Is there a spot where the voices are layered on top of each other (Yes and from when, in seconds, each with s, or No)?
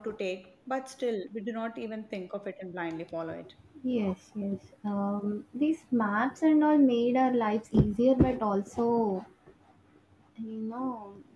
No